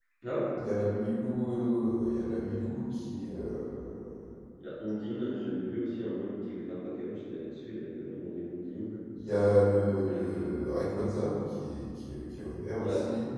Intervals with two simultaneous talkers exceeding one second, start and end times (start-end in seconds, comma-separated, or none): none